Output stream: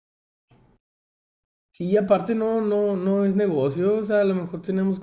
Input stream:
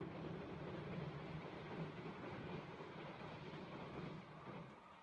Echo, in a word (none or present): none